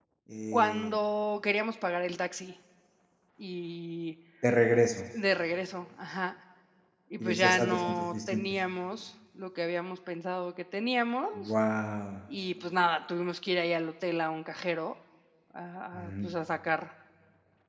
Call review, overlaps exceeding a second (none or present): present